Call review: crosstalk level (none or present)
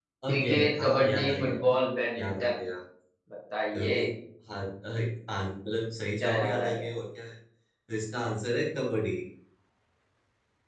present